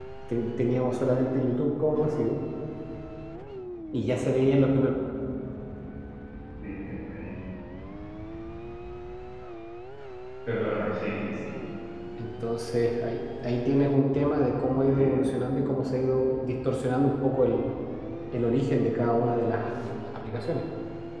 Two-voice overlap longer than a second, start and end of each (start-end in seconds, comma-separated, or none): none